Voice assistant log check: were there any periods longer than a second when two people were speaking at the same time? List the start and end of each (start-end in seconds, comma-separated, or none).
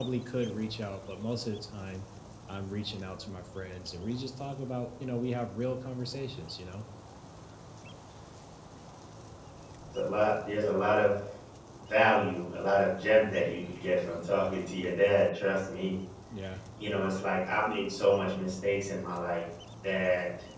none